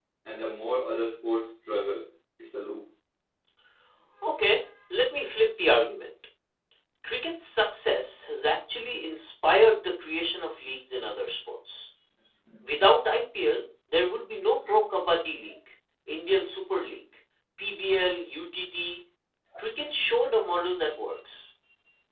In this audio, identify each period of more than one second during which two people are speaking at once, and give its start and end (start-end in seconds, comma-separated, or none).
none